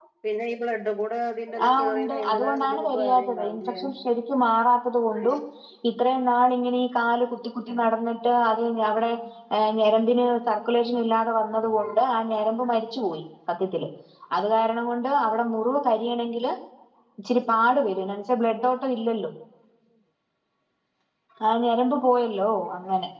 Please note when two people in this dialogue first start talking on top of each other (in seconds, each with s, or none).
1.5 s